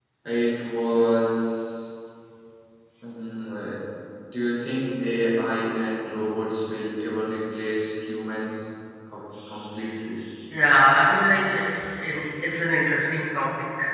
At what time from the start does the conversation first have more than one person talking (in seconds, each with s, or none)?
none